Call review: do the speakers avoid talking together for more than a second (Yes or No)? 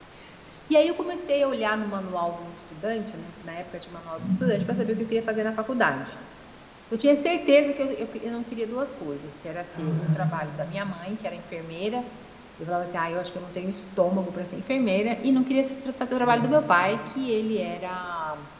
Yes